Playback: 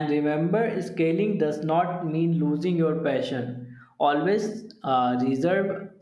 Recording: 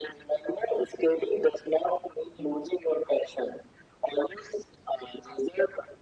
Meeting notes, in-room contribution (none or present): none